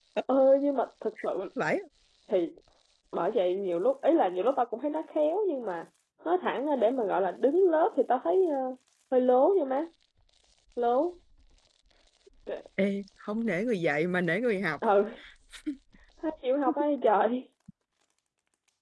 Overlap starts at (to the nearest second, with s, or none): none